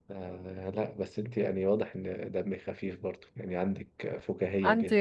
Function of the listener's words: listening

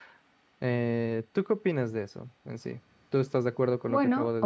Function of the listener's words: taking over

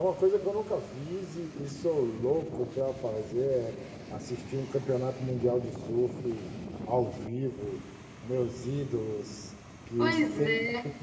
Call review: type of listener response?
listening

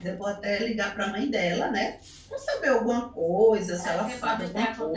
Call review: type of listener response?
taking over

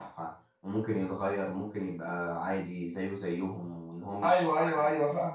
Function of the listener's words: taking over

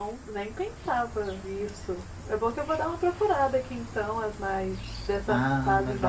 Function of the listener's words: taking over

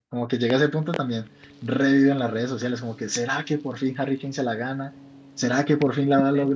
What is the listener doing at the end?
taking over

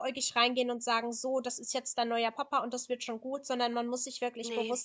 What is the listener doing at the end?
listening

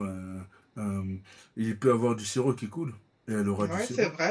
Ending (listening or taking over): taking over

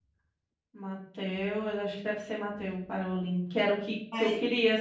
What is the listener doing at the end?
listening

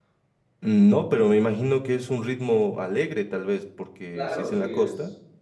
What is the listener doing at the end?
taking over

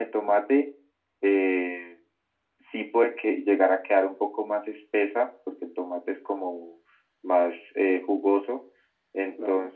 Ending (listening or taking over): listening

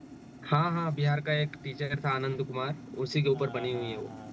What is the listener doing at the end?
taking over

